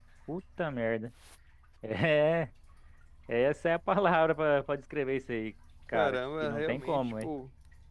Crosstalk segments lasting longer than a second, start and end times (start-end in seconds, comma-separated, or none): 5.9-7.3